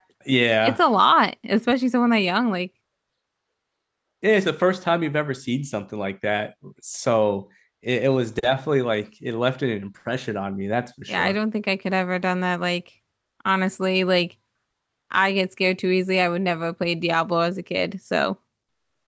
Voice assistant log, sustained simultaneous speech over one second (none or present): none